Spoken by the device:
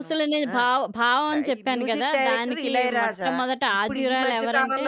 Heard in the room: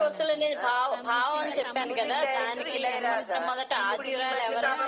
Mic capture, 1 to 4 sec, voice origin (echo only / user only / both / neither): both